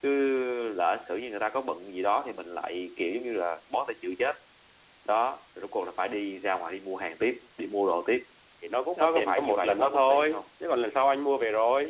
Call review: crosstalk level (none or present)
present